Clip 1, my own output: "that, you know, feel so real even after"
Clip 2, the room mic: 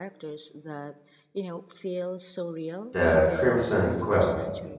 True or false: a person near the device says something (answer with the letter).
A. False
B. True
B